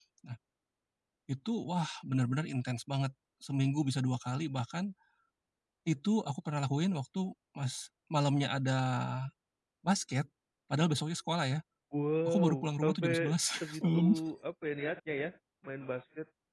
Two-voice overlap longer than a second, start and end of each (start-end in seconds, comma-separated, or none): 12.2-14.2